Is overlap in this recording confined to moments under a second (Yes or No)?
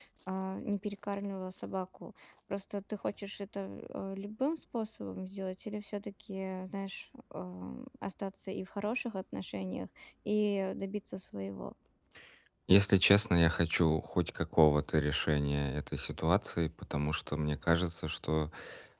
Yes